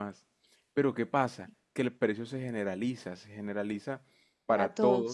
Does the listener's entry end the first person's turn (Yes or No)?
No